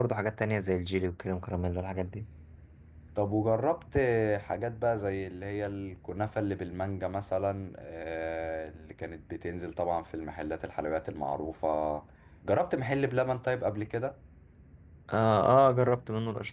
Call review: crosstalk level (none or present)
none